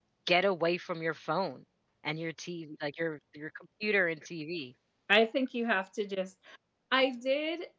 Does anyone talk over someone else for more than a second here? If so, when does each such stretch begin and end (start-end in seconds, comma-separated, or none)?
none